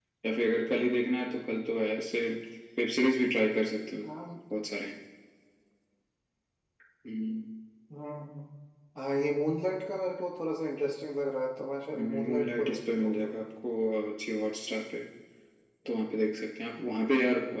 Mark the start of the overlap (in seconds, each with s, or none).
11.9 s